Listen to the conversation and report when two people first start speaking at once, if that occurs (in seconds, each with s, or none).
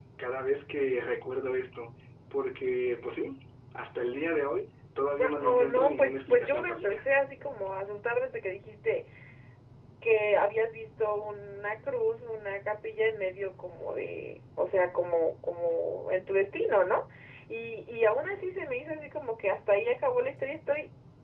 5.0 s